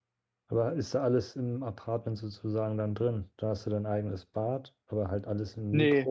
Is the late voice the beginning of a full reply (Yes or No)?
Yes